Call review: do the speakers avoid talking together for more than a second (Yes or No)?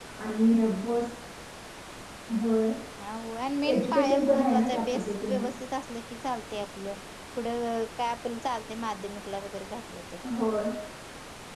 No